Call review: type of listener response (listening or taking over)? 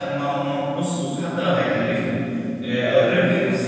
listening